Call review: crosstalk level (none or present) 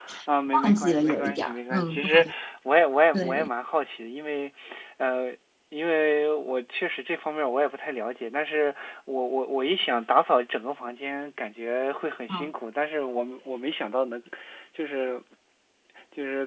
present